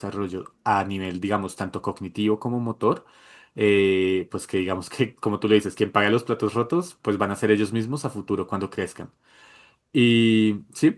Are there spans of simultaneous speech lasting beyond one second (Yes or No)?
No